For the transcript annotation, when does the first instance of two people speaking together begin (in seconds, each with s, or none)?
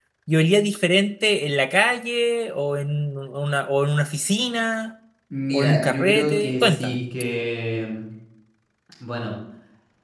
5.5 s